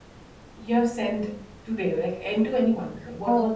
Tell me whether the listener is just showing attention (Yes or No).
No